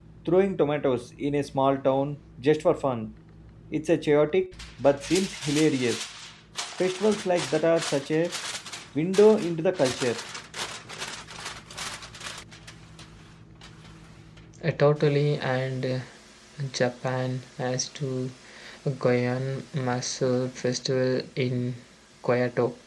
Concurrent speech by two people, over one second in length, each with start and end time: none

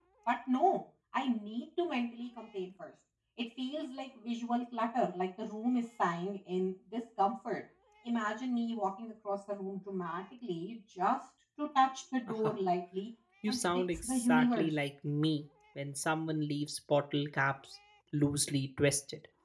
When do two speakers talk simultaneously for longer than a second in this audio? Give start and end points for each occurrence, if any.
13.5-14.7

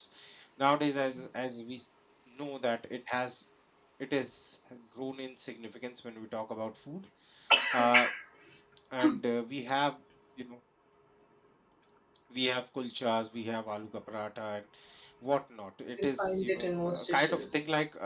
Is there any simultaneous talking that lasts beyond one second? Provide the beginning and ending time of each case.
16.0-17.6

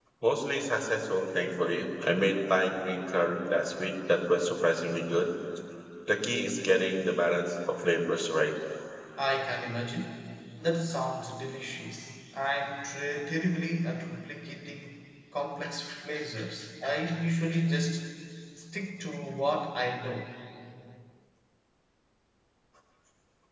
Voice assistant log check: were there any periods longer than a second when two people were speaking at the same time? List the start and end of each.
none

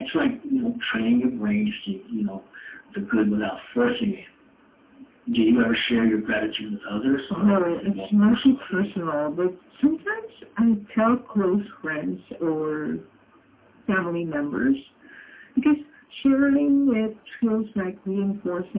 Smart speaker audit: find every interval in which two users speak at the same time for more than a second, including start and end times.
7.3-8.9

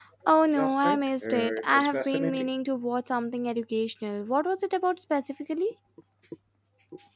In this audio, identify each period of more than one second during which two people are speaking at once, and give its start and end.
0.6-2.5

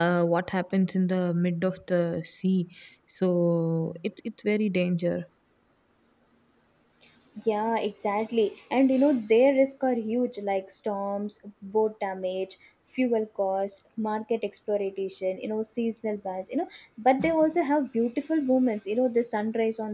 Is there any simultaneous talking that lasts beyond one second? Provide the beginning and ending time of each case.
none

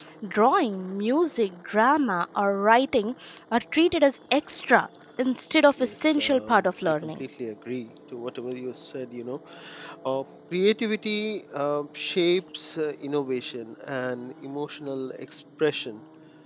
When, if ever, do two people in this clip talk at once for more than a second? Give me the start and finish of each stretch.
5.8-7.2

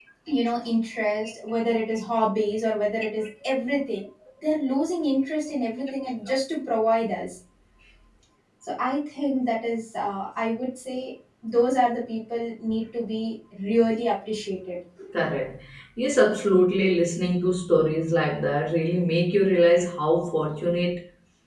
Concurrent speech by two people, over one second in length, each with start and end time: none

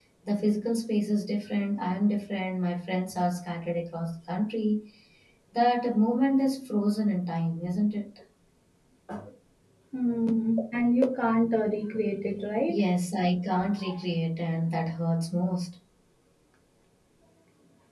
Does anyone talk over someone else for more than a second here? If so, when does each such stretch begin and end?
none

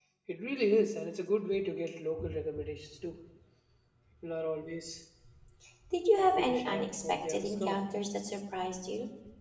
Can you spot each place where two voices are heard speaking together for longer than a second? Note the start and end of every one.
6.2-7.8

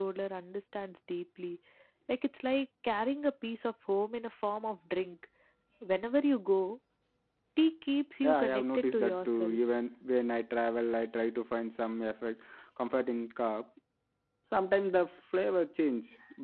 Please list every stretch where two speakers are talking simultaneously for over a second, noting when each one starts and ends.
8.2-9.6

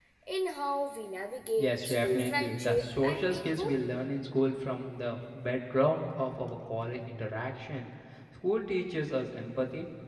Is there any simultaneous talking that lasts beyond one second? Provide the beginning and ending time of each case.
1.6-3.7

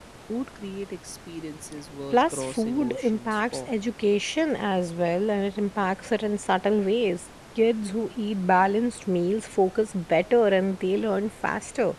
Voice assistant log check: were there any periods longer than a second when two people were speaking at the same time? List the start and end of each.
2.1-3.7

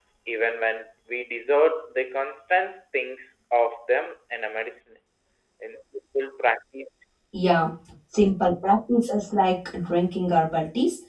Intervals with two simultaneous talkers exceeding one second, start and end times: none

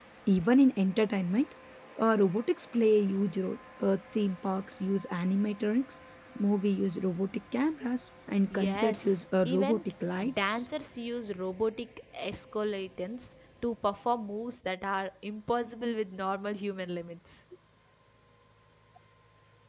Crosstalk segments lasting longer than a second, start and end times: 8.5-9.8

